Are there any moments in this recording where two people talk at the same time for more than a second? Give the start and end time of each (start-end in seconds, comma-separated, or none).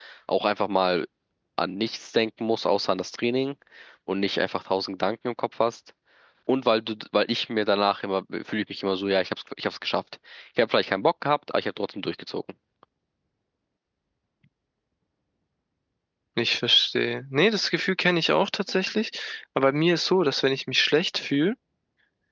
none